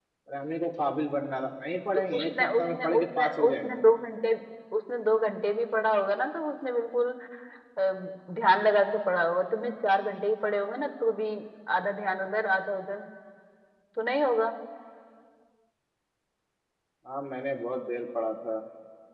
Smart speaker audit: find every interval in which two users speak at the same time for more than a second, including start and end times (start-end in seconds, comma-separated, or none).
2.1-3.8